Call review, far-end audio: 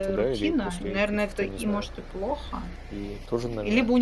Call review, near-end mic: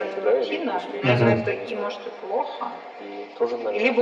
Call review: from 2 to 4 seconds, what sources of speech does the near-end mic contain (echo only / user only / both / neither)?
echo only